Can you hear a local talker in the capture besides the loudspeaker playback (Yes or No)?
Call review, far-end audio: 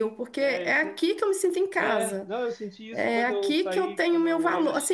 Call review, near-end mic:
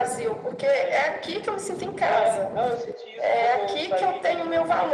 No